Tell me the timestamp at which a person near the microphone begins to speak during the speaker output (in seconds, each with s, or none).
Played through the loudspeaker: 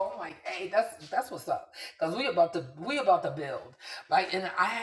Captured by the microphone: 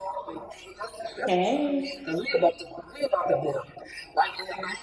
1.3 s